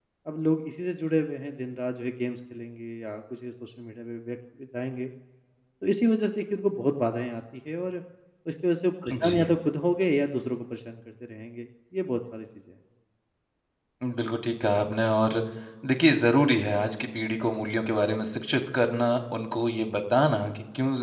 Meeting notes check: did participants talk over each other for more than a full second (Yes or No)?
No